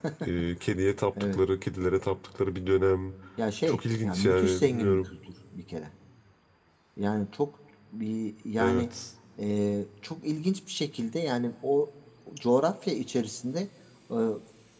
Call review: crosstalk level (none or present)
present